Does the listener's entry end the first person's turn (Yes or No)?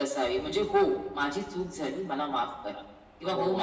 Yes